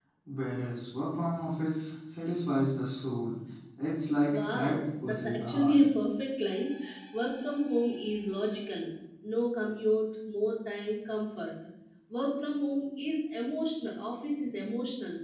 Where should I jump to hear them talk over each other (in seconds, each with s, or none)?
4.3 s